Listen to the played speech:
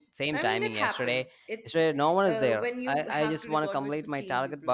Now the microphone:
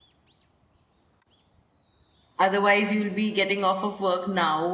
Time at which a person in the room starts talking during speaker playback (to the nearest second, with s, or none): 2 s